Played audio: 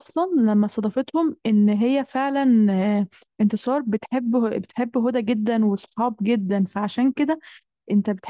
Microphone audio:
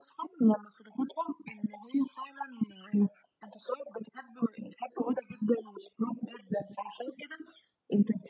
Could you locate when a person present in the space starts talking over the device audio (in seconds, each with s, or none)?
none